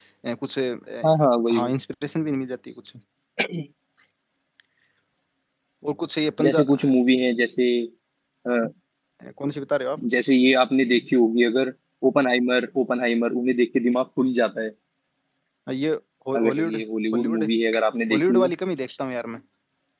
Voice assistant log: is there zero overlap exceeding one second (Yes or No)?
Yes